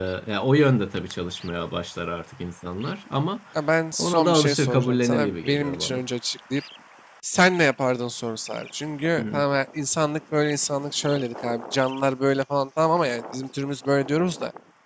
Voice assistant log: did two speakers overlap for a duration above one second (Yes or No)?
Yes